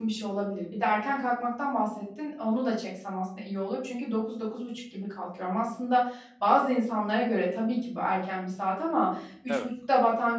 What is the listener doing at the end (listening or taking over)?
listening